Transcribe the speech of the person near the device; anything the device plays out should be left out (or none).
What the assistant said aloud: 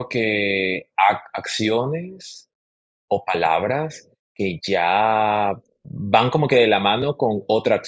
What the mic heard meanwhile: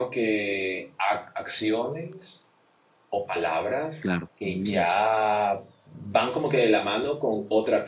claro, también es verdad.